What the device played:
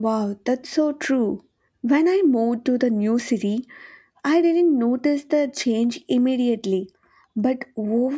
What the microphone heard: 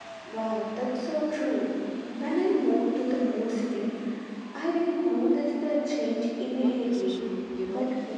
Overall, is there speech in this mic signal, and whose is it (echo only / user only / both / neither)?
both